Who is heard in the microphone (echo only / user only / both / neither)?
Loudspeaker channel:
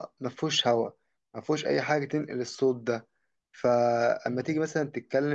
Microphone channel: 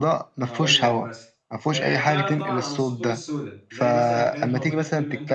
both